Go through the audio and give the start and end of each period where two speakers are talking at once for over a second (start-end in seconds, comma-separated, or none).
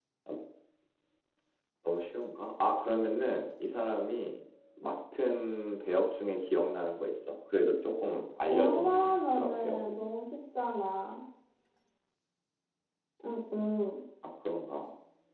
8.5-9.8